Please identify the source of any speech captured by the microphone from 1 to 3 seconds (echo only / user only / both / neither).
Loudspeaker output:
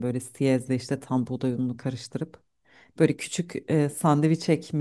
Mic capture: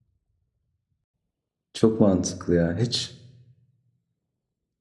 user only